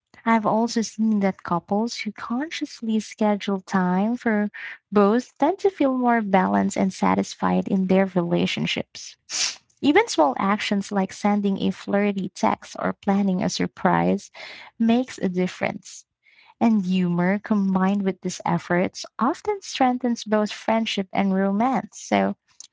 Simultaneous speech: No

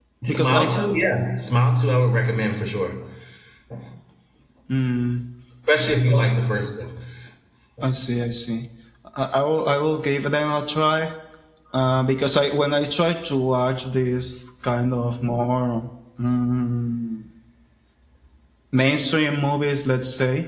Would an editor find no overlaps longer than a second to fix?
Yes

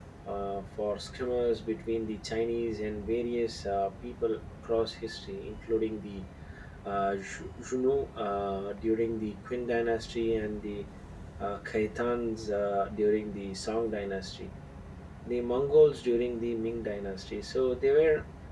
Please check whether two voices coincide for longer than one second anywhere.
No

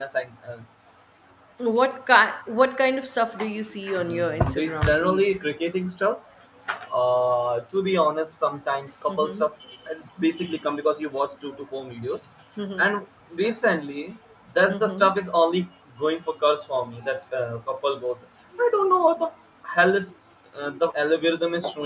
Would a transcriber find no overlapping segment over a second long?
No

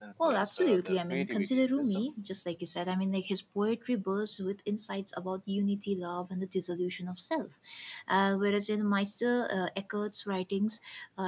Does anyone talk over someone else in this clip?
Yes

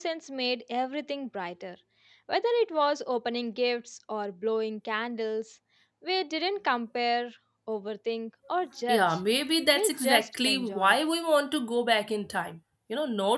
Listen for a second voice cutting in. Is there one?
Yes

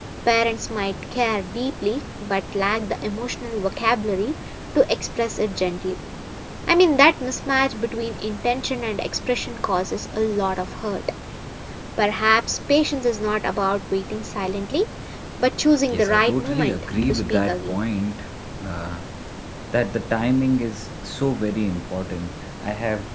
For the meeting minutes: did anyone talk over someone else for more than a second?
Yes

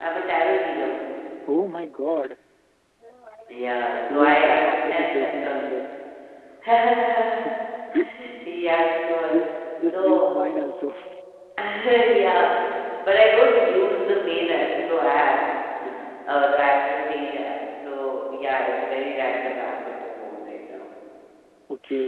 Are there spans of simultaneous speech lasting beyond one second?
Yes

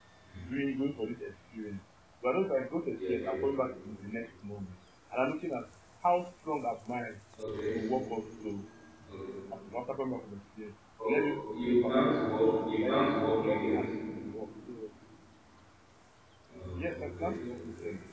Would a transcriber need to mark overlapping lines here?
Yes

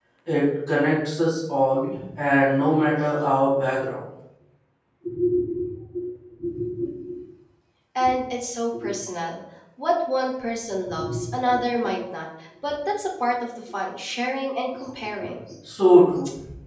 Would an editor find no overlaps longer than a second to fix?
Yes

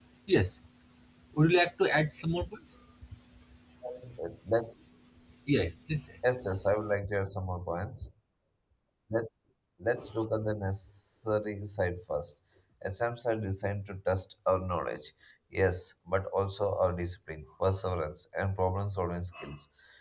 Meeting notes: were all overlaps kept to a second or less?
Yes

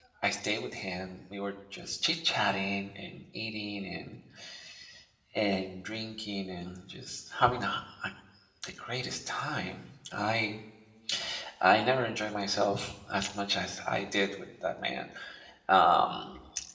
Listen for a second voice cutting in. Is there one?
No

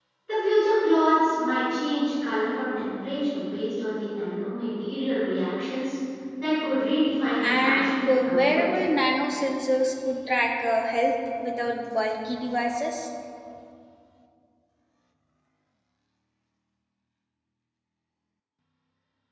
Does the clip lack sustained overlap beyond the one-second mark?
No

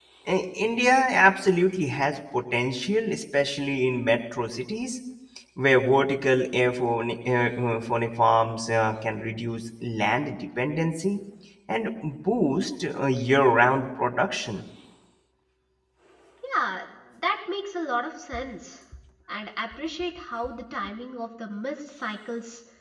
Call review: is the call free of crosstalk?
Yes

